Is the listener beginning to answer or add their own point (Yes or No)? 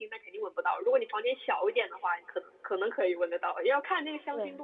No